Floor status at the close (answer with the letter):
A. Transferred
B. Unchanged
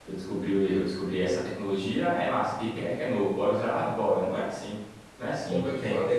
A